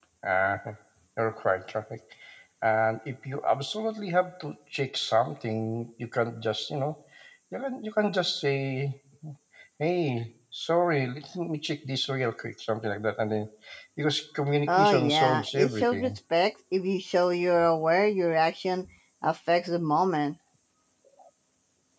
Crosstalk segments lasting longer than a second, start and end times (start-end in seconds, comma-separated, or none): 14.7-16.2